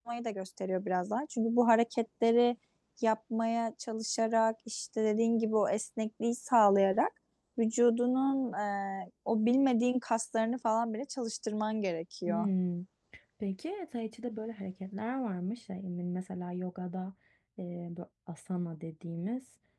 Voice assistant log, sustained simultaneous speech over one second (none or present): none